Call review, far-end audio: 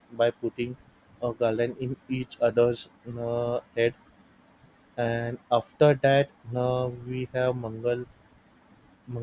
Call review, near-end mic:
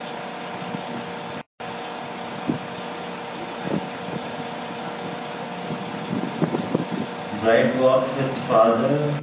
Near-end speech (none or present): present